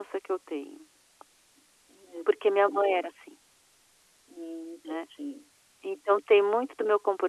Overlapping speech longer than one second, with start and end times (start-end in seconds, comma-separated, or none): none